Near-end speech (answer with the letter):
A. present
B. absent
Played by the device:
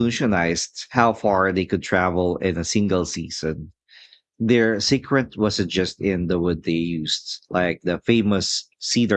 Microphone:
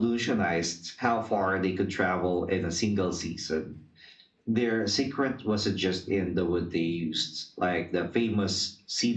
B